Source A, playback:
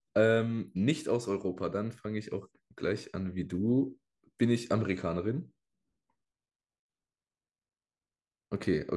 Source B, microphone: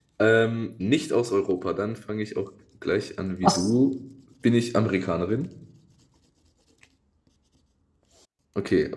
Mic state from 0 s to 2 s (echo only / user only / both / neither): echo only